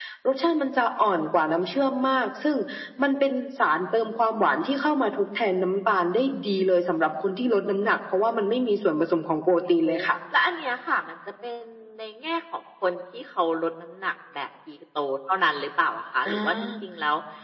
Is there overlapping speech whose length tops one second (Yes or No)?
No